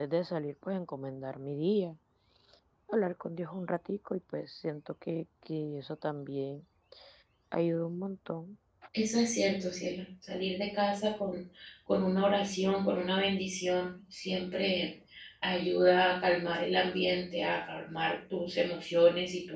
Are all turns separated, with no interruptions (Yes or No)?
Yes